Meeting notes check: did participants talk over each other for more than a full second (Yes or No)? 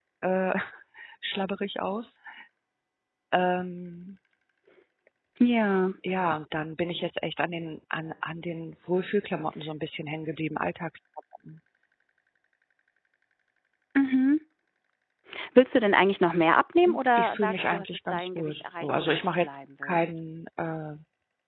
Yes